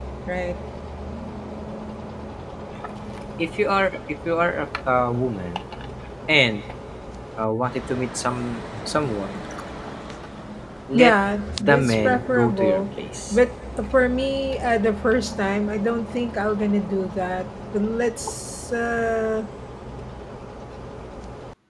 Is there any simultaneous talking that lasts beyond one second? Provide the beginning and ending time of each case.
11.6-12.8

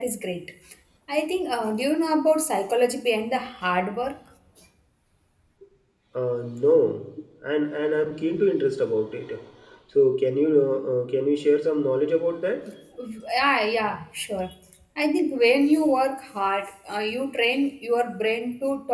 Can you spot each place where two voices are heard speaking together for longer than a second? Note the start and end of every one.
none

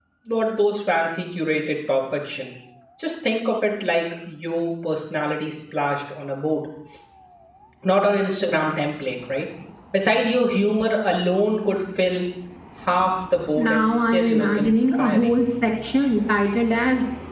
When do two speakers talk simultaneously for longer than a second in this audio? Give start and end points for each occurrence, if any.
13.6-15.4

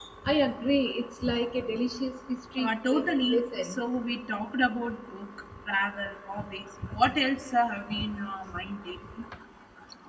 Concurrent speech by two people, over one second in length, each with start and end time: 2.6-3.8

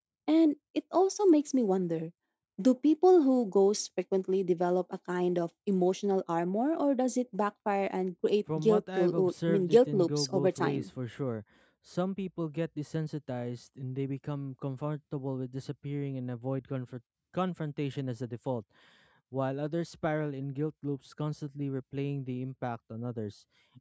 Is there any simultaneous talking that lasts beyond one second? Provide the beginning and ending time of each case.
8.6-10.9

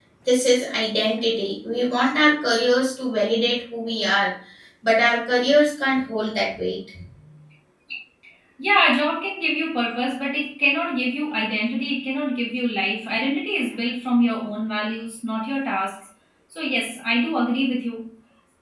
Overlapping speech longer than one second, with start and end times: none

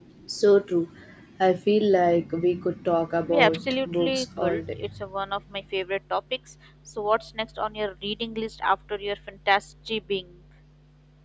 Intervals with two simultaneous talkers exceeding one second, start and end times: 3.3-4.9

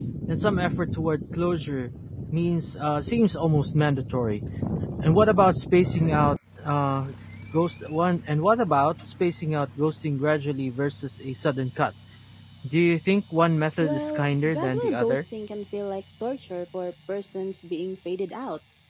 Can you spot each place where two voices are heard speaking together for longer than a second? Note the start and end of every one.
13.8-15.2

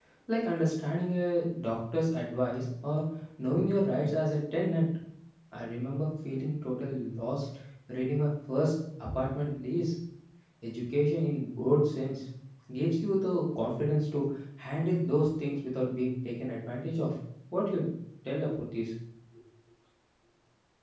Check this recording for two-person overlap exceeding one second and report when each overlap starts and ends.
none

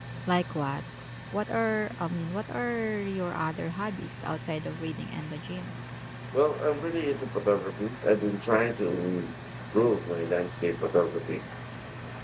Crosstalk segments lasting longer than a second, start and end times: none

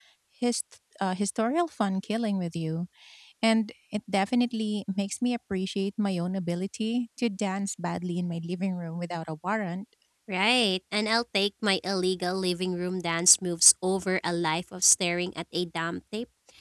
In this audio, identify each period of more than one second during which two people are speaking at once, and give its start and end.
none

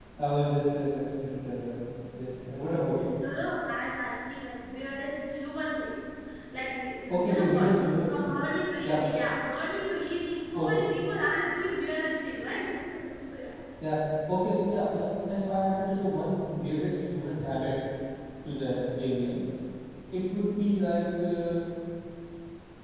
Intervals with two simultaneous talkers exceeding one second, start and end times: 7.1-8.3

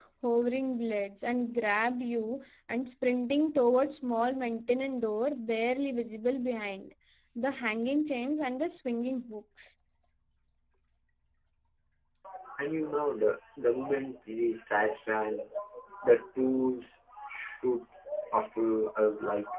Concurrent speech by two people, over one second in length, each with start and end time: none

